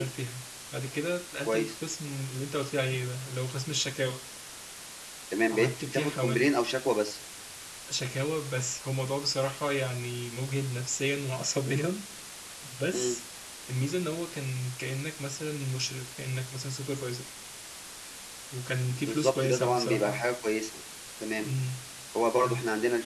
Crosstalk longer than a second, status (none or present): present